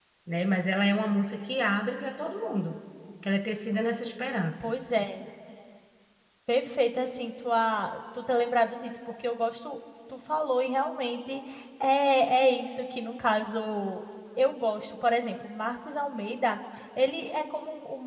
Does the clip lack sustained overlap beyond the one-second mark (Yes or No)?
Yes